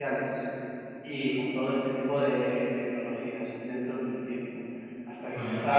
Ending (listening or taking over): listening